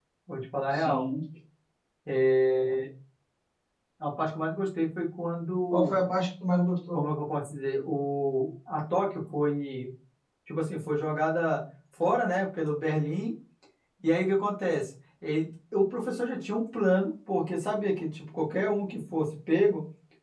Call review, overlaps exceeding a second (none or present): none